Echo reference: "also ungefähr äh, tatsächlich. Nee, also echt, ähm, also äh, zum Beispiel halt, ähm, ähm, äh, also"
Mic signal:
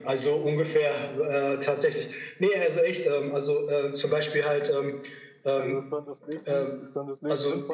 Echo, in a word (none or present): present